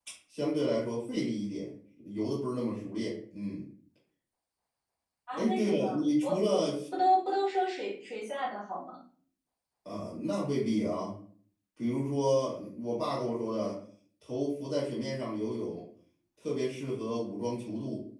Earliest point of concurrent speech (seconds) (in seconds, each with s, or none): 5.3 s